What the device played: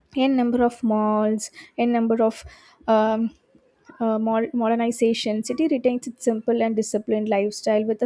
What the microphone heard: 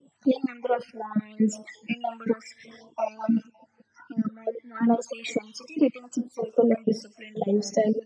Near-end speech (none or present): none